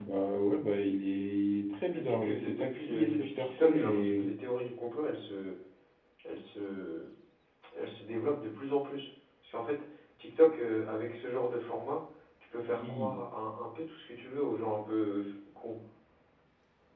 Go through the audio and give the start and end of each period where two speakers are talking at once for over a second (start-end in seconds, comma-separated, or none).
1.9-4.3